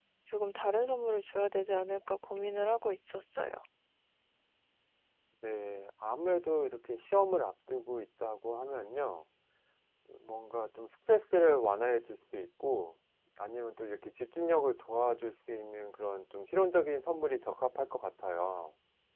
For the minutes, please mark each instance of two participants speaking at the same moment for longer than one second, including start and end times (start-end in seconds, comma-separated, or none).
none